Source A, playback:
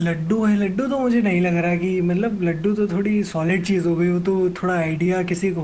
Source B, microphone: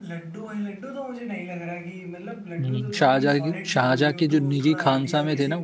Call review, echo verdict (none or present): present